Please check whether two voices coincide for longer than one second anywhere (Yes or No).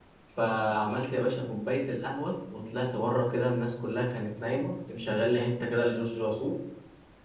No